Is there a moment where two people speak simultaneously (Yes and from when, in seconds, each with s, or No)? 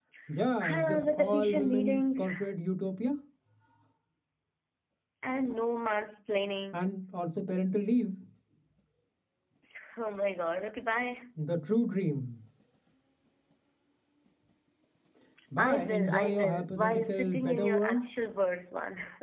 Yes, from 0.7 s